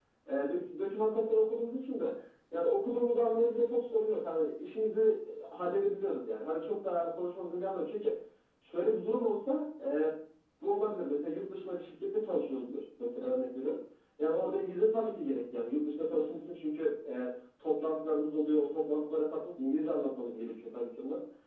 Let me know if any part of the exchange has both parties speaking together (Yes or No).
No